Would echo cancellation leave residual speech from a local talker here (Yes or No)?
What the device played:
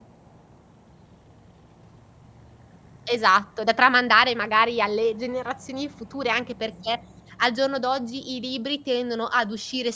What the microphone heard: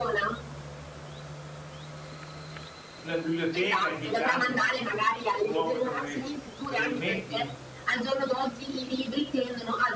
Yes